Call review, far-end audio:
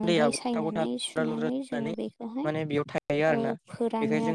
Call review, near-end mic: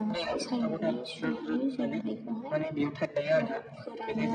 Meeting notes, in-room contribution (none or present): none